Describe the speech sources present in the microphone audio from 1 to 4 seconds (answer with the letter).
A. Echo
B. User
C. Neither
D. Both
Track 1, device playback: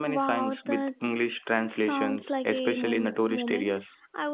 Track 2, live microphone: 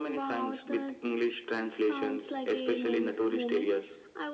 A